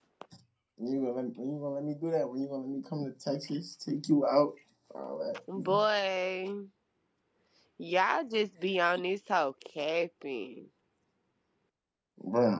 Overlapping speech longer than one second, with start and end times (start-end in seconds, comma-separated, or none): none